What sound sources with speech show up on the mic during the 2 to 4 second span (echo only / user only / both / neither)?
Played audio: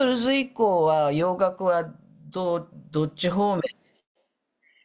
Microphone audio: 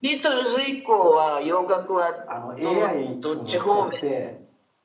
both